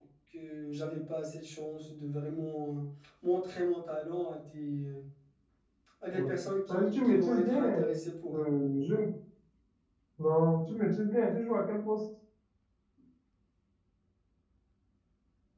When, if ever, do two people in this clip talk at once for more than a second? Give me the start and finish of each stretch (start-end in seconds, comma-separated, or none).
6.7-7.9